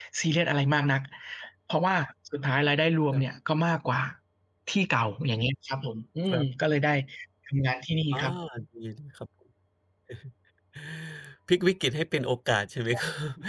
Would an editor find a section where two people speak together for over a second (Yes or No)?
No